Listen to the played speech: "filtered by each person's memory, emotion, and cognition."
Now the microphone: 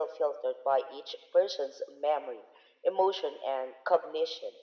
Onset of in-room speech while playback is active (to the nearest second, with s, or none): none